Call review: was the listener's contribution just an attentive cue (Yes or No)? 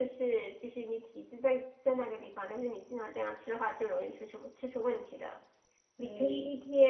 Yes